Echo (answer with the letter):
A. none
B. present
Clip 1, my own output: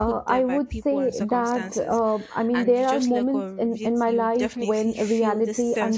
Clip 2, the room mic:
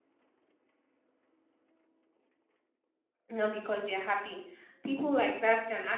A